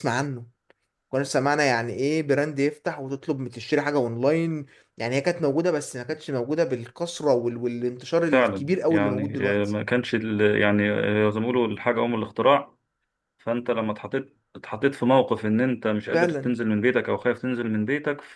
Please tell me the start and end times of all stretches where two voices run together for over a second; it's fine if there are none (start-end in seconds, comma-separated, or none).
8.3-9.6